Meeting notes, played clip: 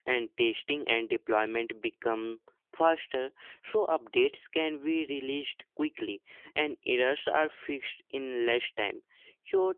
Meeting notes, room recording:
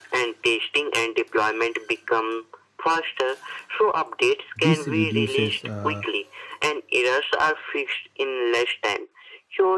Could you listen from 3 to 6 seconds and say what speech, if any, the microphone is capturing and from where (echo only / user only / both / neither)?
both